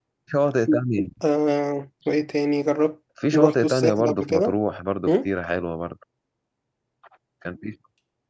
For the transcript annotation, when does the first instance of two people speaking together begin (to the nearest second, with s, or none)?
3 s